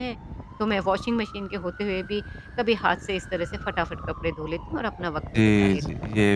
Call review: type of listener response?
taking over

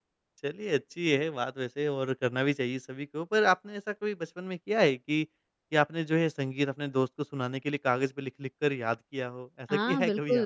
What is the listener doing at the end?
taking over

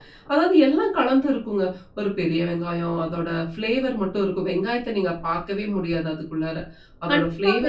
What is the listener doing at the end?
taking over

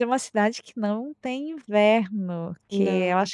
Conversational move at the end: listening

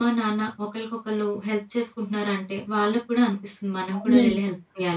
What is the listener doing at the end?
taking over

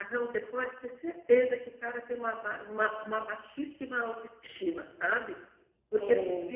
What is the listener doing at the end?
listening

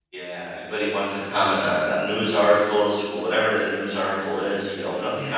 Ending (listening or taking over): taking over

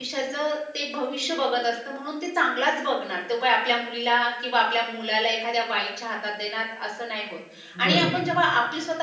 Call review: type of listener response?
listening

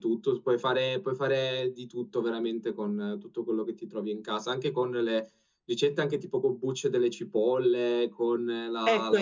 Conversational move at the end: taking over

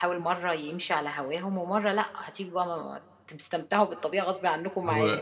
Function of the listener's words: taking over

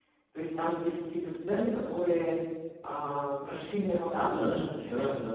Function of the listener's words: taking over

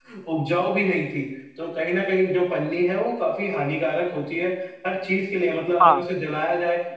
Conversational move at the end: listening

